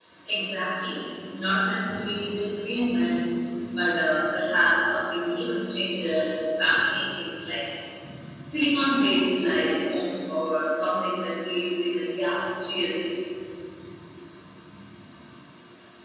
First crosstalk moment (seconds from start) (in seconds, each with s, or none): none